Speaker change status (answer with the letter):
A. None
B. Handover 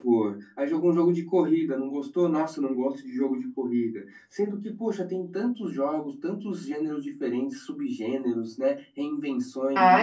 A